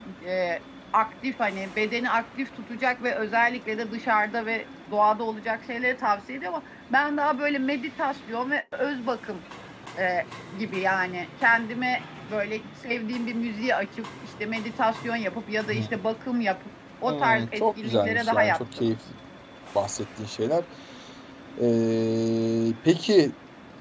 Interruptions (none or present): present